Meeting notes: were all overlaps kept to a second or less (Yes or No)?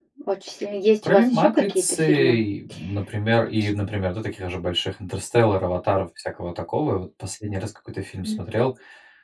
No